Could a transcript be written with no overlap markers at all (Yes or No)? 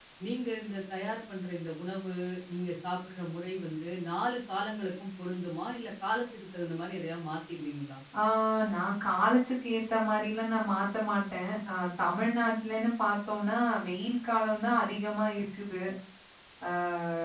Yes